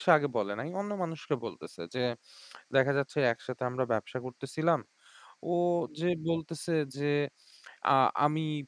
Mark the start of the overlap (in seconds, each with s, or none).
none